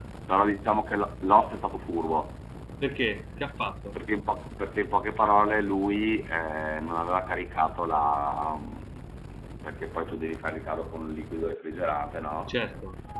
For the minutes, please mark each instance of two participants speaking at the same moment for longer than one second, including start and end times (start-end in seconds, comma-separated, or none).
none